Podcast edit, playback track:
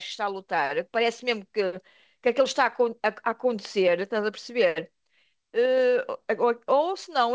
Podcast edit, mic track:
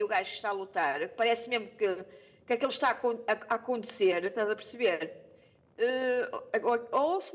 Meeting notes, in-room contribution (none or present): none